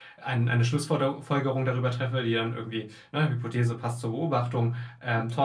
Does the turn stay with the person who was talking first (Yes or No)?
Yes